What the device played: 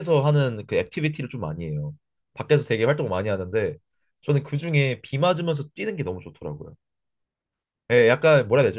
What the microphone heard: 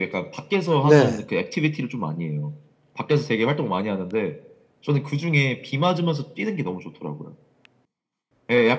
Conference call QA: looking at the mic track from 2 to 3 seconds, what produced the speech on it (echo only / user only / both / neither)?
echo only